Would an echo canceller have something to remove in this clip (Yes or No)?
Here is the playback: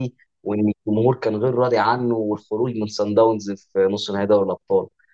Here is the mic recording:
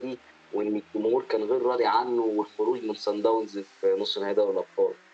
Yes